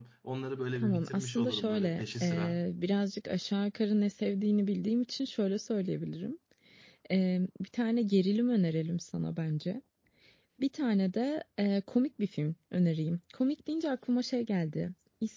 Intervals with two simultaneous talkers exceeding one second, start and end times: 0.8-2.6

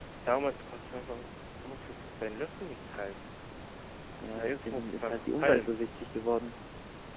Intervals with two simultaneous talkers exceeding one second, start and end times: 4.3-5.7

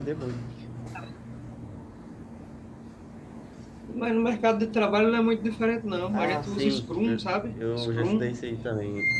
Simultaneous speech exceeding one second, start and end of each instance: 6.1-8.3

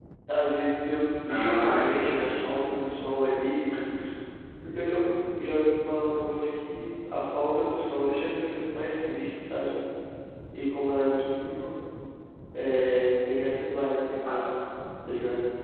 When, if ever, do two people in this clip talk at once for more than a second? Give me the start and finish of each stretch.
1.3-2.5

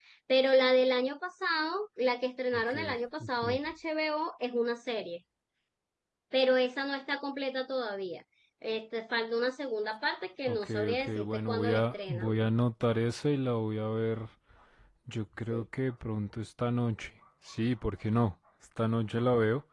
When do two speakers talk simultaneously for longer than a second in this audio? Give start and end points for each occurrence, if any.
10.5-12.3

